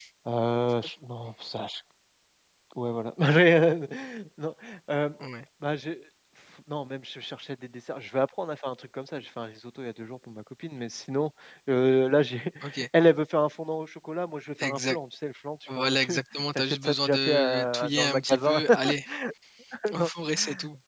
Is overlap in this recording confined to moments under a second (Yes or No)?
No